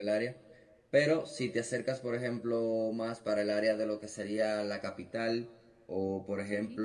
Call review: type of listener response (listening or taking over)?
listening